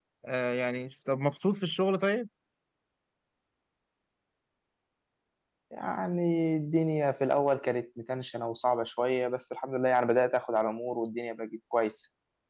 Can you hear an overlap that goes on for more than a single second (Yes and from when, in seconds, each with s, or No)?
No